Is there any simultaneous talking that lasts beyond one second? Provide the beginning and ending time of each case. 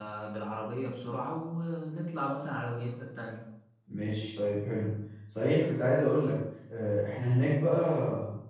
none

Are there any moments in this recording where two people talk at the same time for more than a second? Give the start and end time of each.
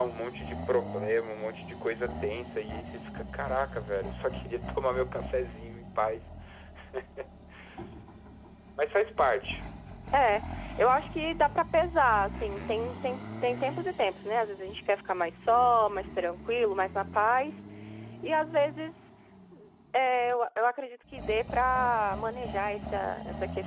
none

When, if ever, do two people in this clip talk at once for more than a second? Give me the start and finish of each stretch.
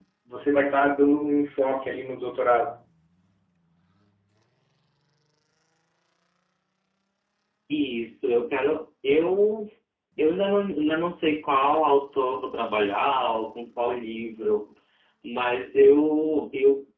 none

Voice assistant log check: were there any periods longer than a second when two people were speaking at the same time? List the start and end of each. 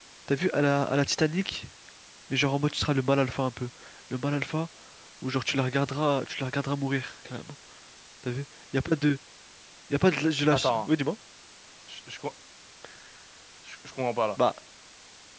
none

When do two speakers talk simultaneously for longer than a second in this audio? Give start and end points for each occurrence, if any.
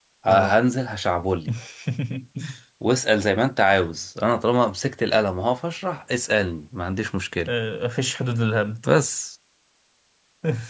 none

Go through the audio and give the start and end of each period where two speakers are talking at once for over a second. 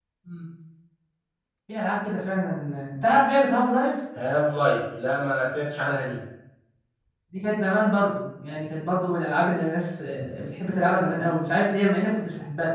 none

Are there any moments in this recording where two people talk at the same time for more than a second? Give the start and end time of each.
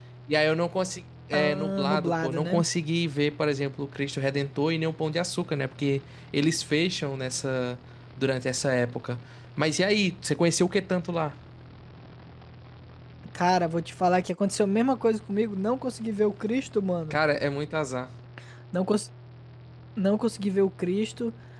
1.3-2.6

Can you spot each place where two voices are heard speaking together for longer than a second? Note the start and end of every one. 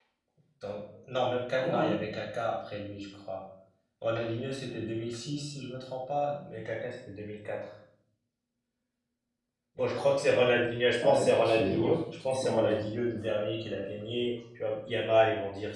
11.0-12.9

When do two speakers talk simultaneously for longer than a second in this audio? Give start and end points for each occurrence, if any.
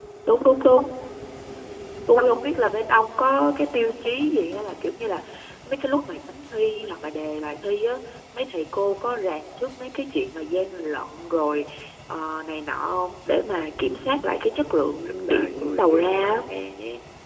15.1-16.4

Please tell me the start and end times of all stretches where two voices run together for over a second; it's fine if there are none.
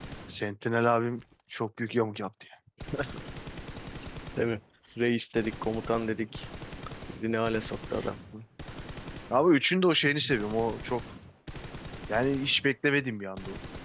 none

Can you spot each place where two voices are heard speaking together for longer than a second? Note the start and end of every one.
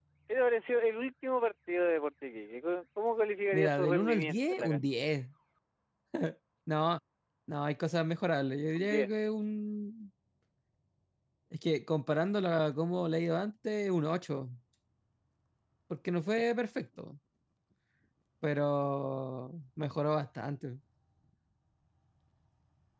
3.5-4.8

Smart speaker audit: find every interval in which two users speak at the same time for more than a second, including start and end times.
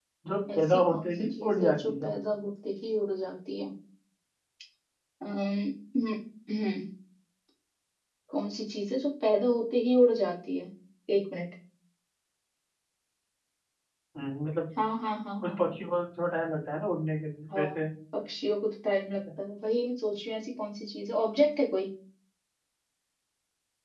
0.5-2.1

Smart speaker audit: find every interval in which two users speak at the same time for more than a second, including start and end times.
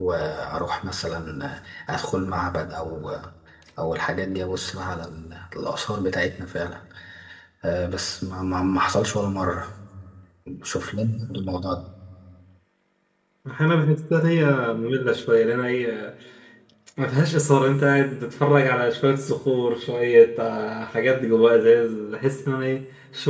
none

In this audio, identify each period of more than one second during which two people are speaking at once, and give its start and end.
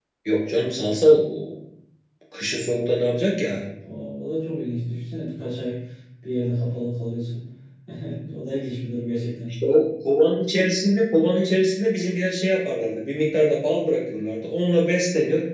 none

